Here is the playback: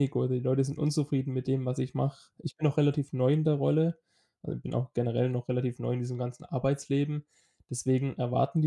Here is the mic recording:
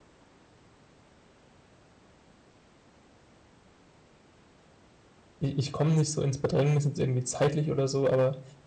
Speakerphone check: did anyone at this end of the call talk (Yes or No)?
Yes